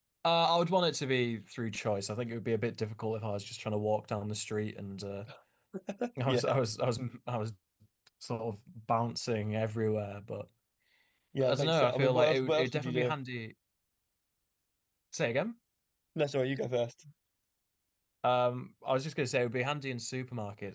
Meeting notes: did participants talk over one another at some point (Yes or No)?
Yes